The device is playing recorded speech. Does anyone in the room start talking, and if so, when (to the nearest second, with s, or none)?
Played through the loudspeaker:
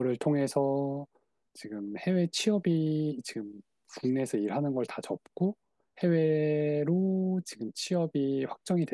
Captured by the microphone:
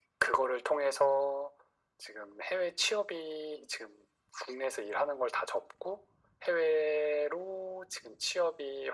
none